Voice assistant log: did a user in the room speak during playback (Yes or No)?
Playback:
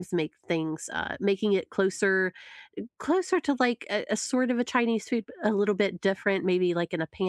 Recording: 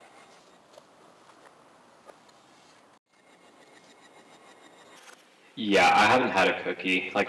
Yes